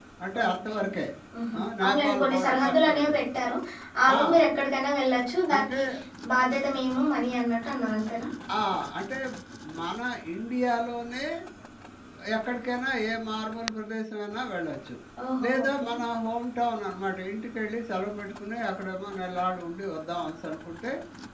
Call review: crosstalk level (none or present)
present